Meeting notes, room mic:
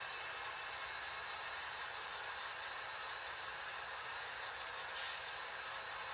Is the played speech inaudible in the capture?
Yes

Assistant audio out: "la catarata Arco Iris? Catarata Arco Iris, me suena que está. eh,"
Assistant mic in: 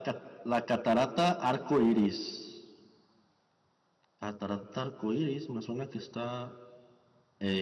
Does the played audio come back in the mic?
Yes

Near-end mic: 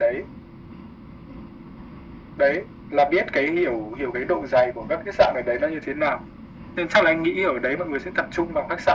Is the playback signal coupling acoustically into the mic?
Yes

